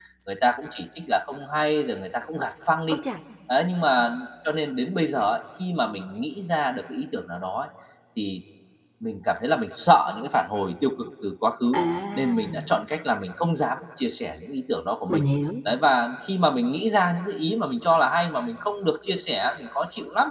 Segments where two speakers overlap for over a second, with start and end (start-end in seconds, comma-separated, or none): none